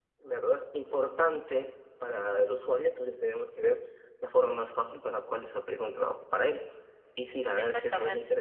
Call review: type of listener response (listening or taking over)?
listening